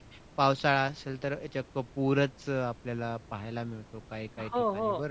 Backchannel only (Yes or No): No